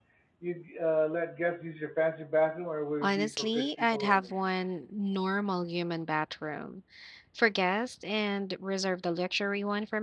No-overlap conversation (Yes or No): No